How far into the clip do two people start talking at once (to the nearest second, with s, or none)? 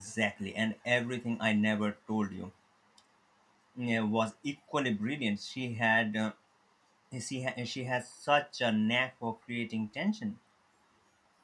none